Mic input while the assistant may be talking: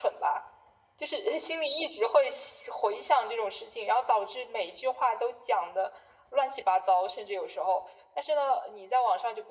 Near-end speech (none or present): none